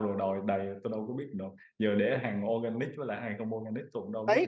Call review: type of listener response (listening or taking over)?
taking over